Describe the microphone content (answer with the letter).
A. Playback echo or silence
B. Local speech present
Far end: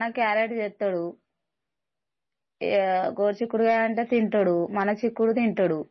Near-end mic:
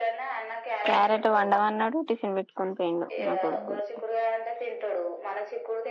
B